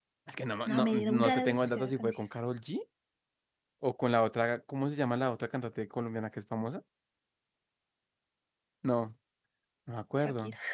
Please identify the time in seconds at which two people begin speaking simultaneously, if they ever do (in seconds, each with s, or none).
0.6 s